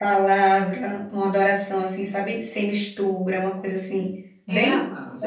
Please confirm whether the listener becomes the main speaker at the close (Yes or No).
Yes